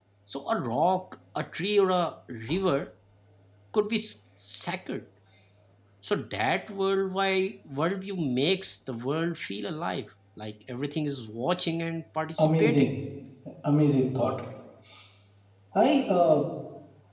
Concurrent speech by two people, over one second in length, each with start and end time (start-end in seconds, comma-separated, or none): none